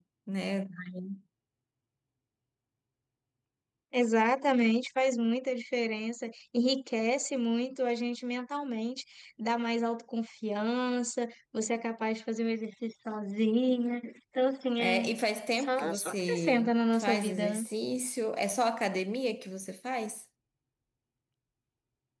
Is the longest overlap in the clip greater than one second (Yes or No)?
Yes